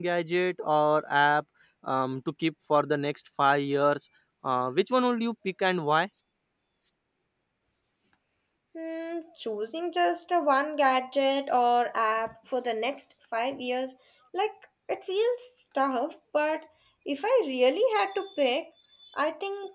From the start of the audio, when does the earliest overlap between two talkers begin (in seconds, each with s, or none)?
none